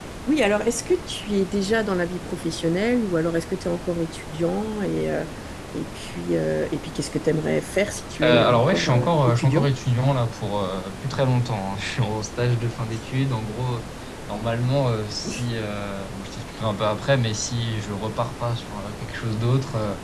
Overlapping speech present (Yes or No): Yes